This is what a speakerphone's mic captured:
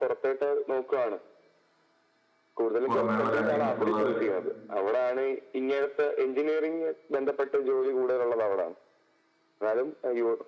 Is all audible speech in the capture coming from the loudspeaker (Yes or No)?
No